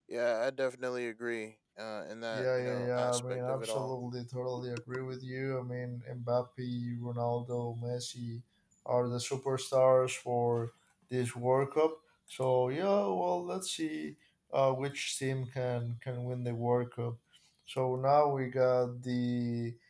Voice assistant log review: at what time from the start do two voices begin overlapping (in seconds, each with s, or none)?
2.3 s